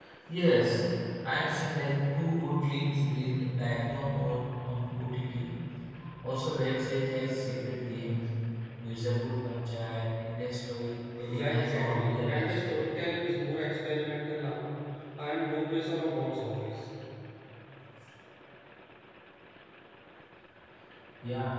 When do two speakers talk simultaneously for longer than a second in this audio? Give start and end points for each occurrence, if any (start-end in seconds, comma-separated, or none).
11.3-13.1